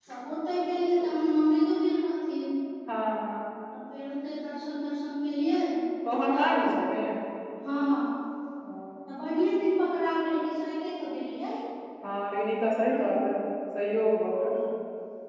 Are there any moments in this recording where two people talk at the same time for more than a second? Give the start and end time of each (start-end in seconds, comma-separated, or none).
none